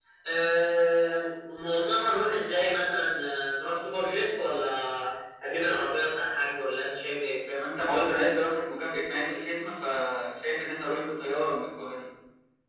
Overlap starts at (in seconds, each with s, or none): none